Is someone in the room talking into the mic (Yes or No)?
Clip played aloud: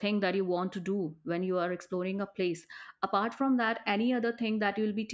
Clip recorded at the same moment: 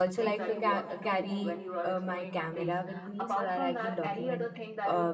Yes